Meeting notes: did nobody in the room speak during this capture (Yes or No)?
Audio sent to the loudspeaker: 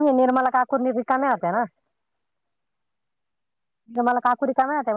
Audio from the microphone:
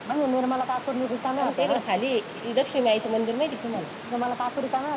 No